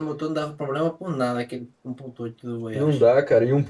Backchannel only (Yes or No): No